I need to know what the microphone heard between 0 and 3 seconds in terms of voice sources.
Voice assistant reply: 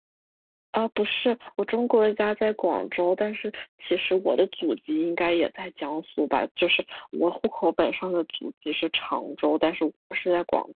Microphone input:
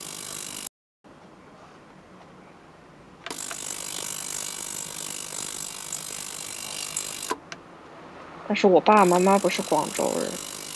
neither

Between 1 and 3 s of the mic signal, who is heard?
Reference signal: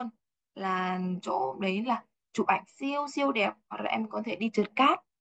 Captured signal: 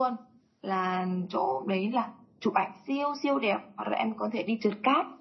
echo only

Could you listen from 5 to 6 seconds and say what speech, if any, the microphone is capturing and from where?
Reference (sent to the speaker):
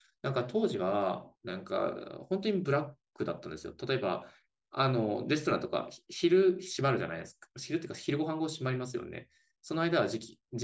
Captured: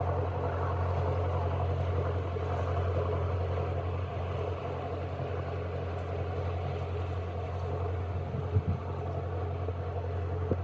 neither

